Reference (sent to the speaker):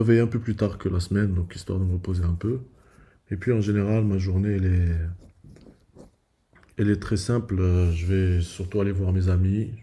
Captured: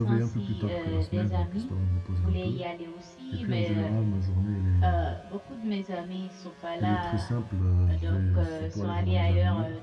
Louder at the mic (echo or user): echo